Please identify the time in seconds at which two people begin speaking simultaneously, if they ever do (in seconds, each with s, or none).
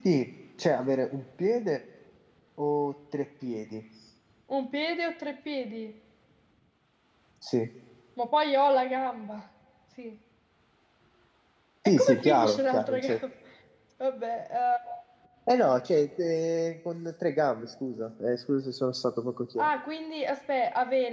11.8 s